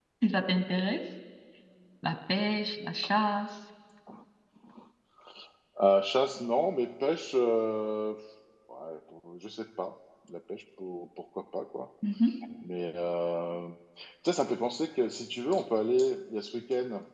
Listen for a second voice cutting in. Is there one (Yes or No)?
No